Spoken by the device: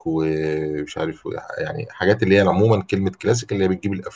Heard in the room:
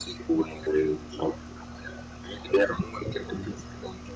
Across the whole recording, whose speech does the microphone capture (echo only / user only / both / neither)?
echo only